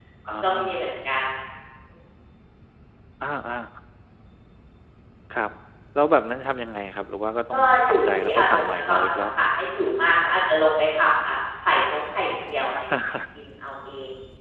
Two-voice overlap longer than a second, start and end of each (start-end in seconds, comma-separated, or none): 7.5-9.5